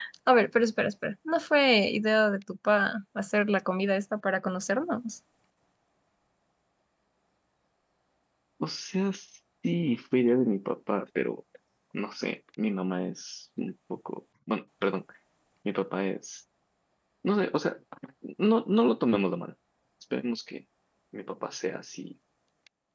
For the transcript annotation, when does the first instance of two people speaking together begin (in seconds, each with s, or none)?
none